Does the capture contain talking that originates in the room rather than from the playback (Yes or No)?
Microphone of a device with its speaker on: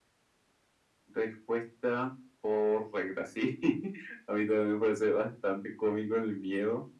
No